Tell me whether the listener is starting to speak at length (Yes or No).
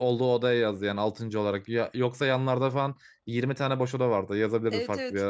Yes